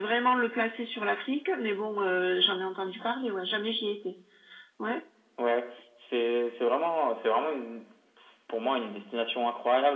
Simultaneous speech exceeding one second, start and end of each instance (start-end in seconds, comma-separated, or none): none